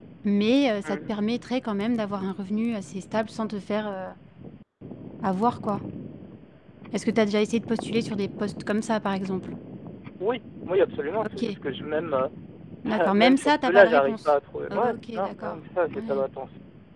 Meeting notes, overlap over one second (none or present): present